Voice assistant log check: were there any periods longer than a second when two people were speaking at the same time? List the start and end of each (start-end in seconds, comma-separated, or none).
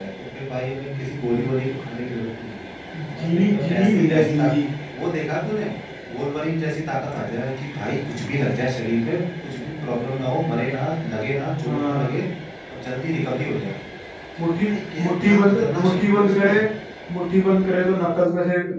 3.2-4.5, 15.0-16.5